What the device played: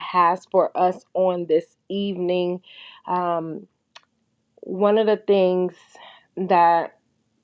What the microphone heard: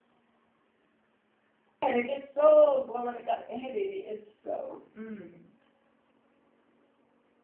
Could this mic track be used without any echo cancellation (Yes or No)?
Yes